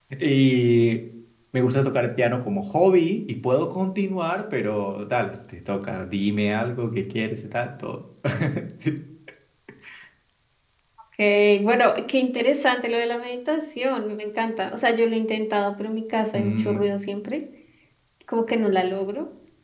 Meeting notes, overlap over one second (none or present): none